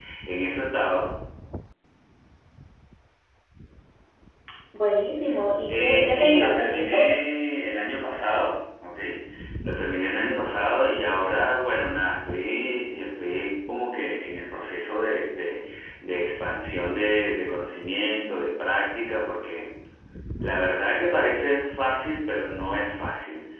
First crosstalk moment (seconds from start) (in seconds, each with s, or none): 5.7 s